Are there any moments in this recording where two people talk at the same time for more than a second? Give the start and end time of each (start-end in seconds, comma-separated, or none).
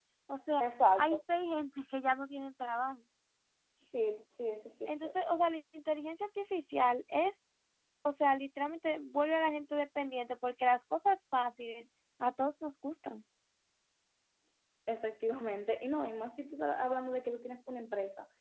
none